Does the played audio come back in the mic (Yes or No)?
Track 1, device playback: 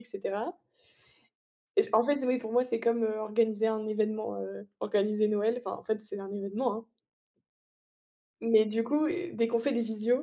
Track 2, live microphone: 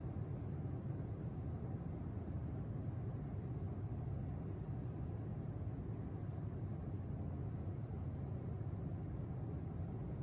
No